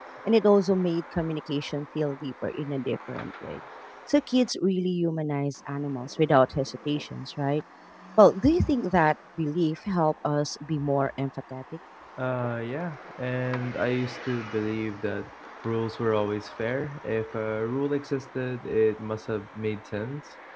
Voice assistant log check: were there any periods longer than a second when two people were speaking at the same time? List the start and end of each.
none

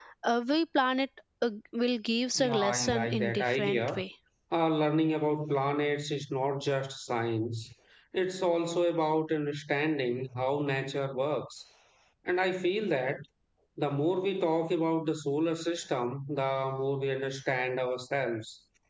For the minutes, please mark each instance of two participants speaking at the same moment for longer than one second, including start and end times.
2.4-3.8

